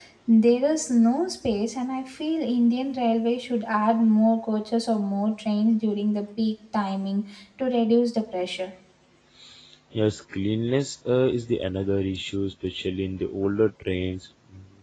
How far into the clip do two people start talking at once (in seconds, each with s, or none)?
none